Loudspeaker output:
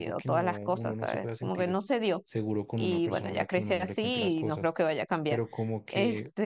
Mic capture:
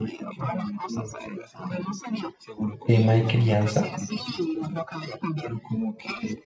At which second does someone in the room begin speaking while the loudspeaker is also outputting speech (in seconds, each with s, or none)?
2.9 s